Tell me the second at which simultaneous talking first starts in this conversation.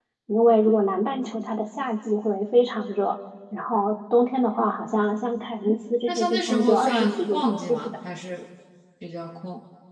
6.1 s

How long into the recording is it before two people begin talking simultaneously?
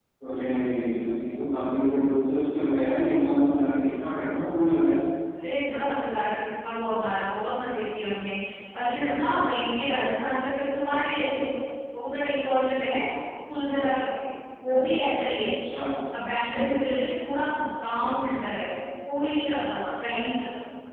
none

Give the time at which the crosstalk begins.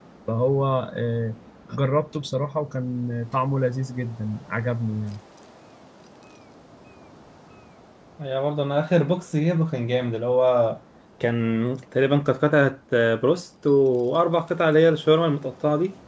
none

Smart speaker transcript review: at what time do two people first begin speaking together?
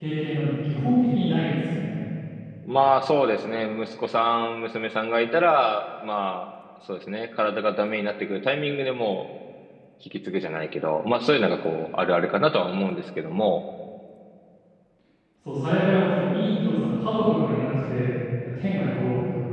none

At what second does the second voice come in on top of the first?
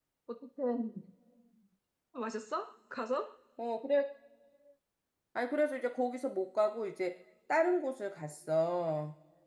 none

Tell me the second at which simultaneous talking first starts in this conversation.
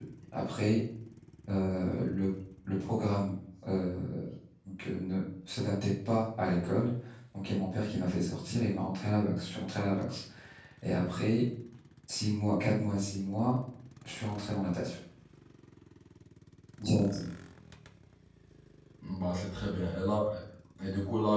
none

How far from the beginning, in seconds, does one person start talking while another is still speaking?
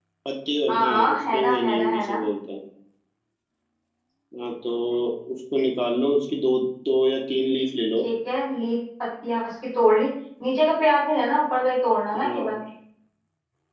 0.7 s

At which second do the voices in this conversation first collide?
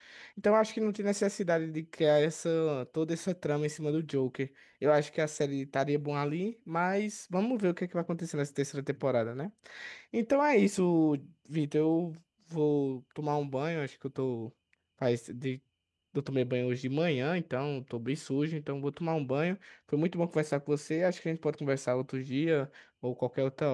none

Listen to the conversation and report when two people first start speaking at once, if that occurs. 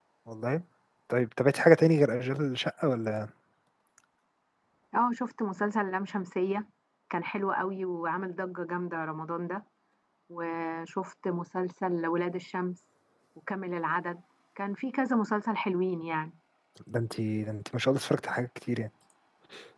none

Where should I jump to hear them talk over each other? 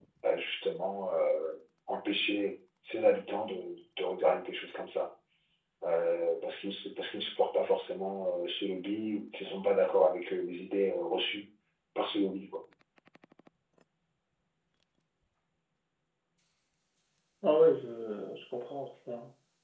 none

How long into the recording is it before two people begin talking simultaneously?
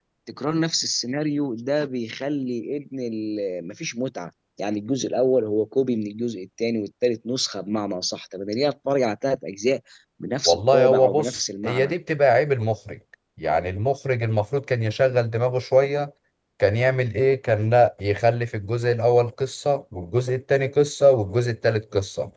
10.4 s

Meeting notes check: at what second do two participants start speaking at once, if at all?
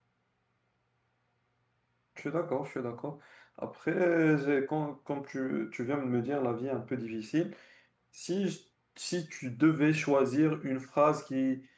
none

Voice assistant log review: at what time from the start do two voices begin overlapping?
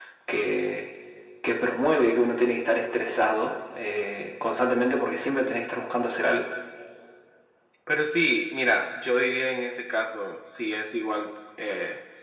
none

